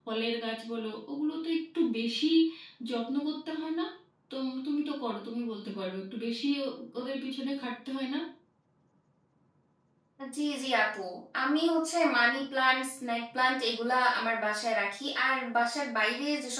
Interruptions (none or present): none